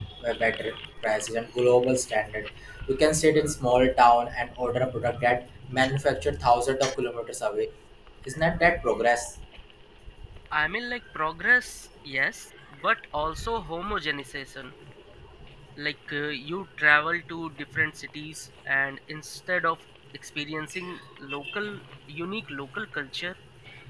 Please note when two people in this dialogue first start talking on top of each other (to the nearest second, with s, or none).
none